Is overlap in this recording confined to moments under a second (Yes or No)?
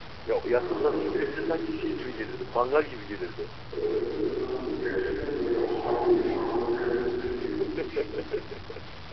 No